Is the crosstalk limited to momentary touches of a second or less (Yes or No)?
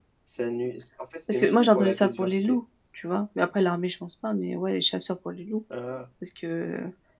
No